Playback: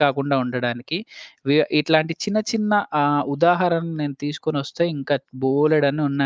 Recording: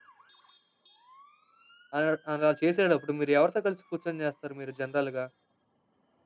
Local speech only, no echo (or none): ఆహ్, అలా చేసేటప్పుడు మీరు ఎవరితో కలిసి కూర్చొని చేస్తారు మీరు జనరల్‌గా?